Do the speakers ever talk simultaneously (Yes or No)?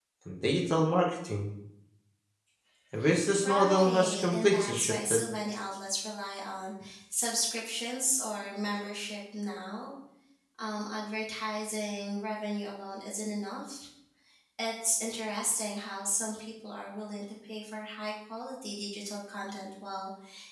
Yes